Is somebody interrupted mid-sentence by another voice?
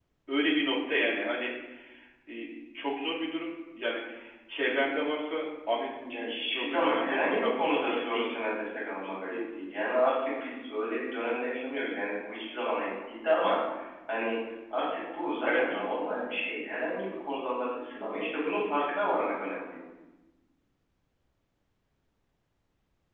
Yes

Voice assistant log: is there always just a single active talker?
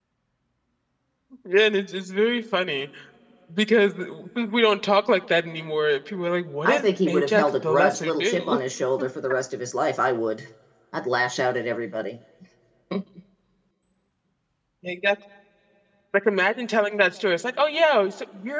No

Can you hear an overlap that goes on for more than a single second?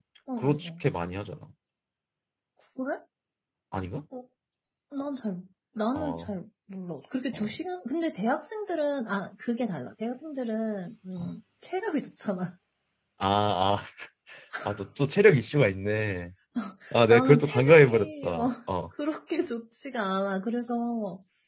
Yes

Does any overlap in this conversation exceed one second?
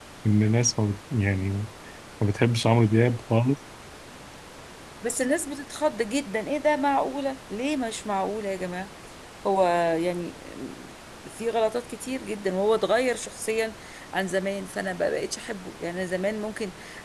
No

